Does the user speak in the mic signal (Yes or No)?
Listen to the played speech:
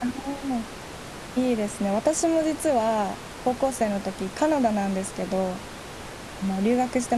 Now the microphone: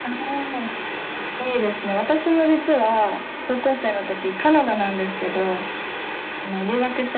No